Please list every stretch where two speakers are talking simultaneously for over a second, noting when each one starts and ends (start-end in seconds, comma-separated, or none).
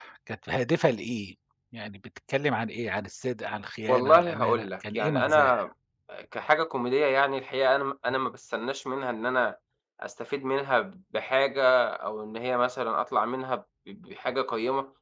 3.9-5.6